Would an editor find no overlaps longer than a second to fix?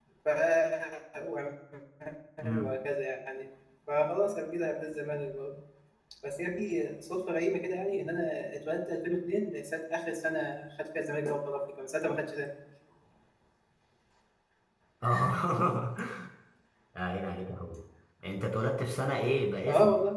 Yes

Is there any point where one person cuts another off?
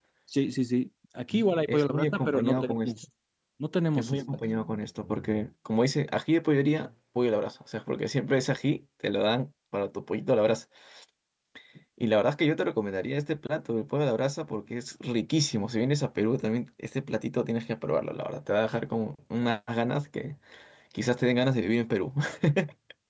Yes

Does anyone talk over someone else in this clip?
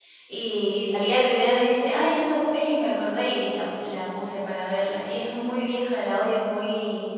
No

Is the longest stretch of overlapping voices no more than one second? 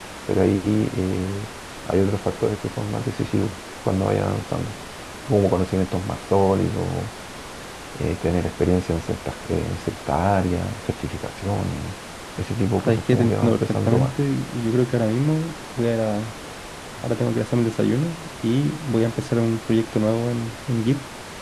No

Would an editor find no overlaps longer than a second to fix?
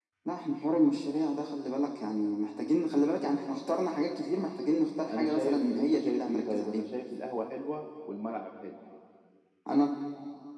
No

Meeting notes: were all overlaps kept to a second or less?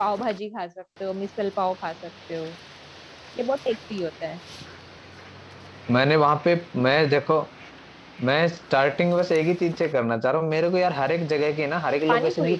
Yes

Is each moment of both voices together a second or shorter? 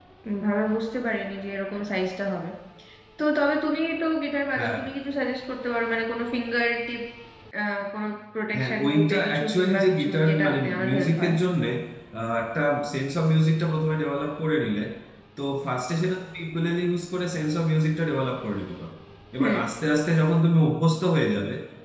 No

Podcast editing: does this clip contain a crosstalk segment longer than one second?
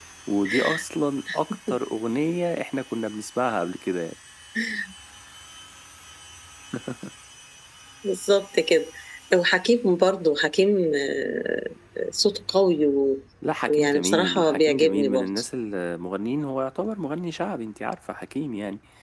Yes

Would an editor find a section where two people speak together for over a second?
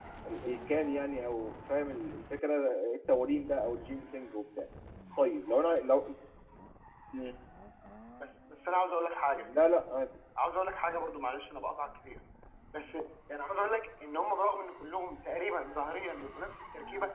No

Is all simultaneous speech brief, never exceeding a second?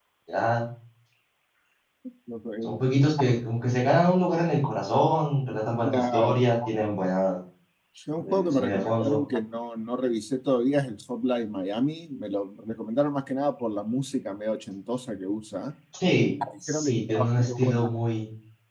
No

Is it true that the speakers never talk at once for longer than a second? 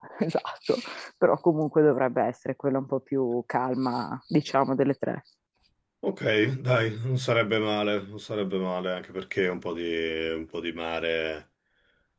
Yes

